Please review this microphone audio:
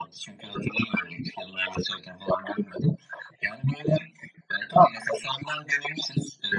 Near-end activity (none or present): none